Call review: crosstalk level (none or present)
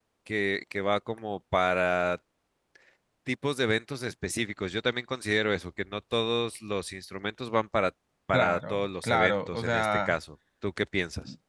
present